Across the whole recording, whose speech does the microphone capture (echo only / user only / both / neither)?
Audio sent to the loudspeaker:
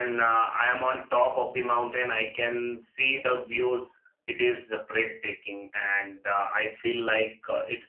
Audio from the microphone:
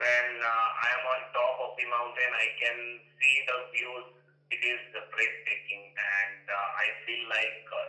echo only